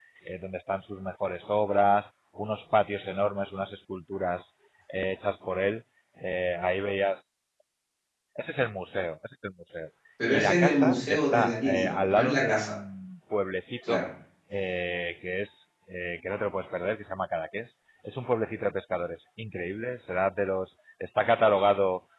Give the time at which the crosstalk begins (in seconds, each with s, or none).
10.3 s